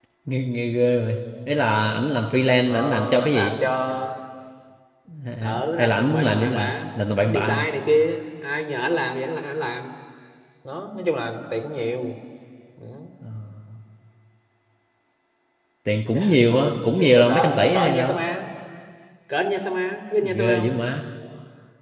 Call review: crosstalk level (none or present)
present